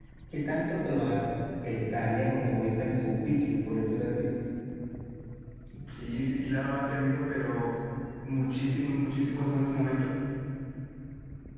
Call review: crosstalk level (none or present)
none